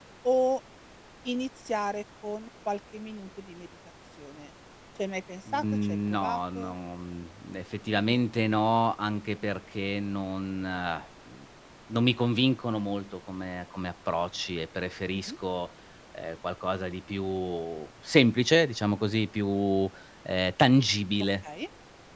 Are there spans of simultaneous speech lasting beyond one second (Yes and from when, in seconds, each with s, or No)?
Yes, from 5.5 s